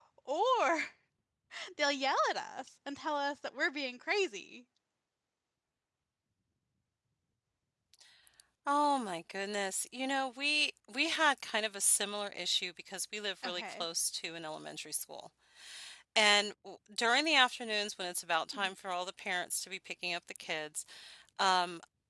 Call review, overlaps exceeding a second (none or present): none